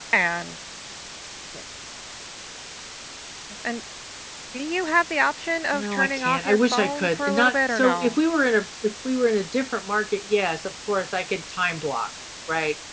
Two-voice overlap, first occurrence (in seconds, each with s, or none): 5.7 s